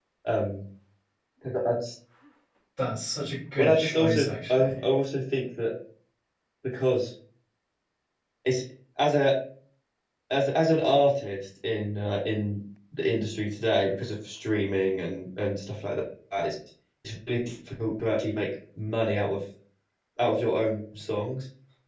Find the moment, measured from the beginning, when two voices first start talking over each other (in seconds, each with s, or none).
3.6 s